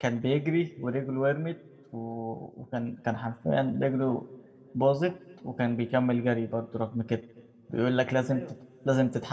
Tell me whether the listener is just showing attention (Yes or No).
Yes